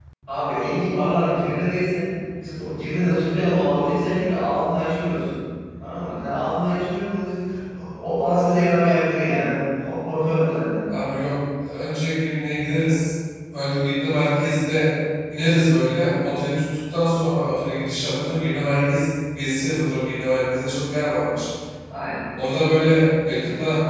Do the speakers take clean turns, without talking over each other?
Yes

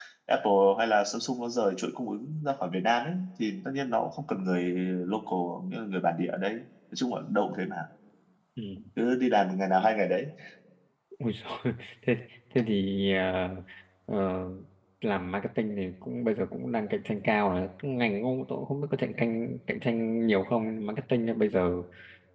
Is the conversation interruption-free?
Yes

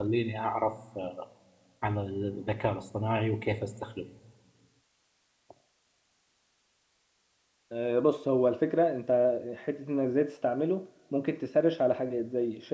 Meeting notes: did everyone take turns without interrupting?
Yes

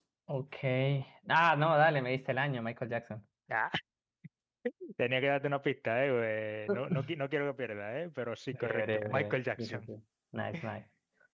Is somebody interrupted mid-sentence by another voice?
Yes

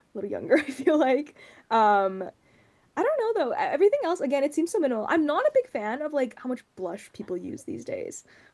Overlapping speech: No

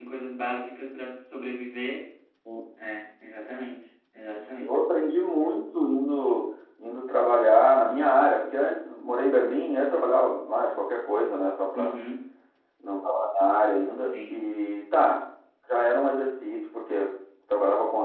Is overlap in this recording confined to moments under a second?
Yes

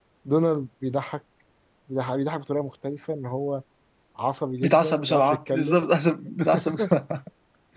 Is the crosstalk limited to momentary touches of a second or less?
No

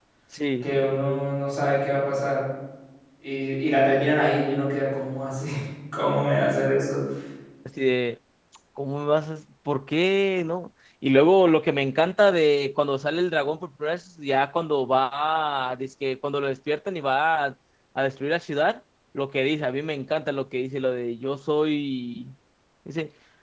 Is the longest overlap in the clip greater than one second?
No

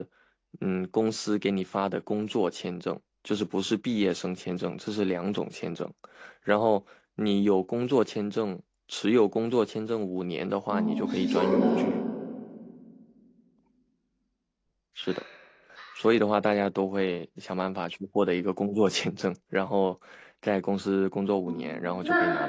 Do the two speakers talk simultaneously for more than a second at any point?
Yes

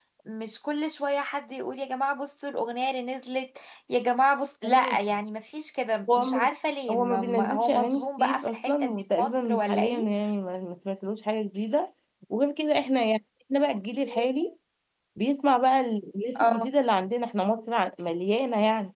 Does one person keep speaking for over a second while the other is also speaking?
Yes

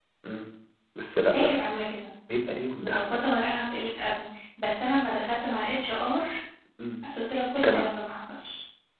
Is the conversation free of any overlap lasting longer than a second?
Yes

